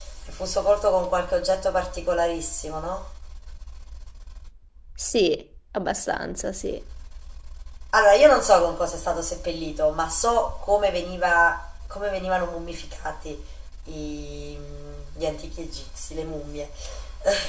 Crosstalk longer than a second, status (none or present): none